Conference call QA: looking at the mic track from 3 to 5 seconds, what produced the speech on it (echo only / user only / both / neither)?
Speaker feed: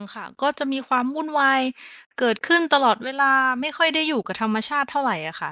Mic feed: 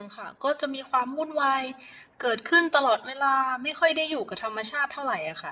echo only